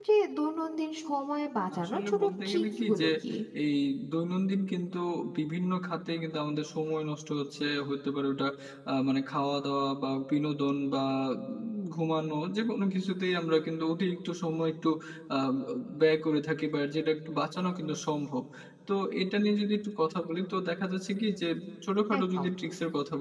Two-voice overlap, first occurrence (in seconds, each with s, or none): 1.8 s